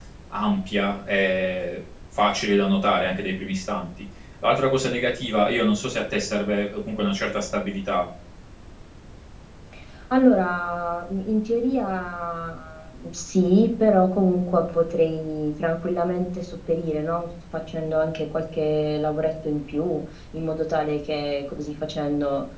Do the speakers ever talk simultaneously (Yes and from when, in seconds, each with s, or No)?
No